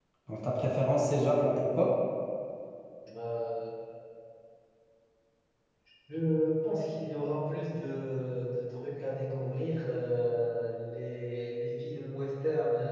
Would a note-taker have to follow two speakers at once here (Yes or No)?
No